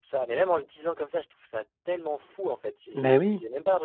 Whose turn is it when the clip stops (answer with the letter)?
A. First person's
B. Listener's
A